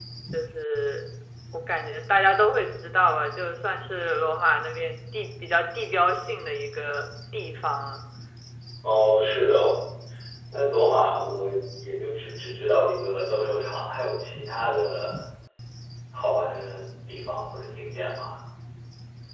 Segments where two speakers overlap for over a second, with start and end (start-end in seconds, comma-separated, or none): none